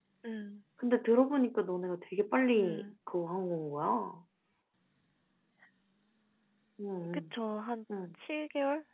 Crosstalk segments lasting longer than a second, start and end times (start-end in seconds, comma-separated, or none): none